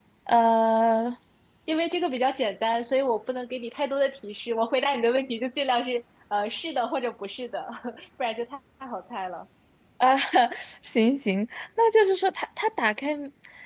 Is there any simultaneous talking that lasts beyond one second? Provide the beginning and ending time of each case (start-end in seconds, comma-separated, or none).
none